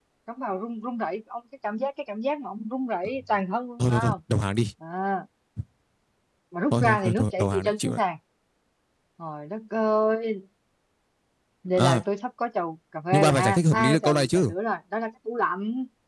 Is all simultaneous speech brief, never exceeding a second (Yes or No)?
No